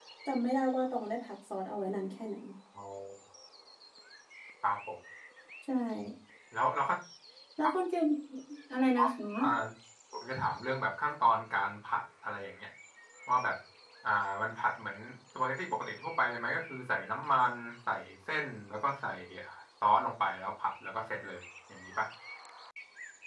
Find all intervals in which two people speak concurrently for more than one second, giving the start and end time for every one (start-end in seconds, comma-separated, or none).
none